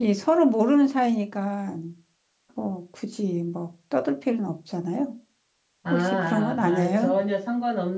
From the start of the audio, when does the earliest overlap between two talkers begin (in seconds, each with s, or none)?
5.9 s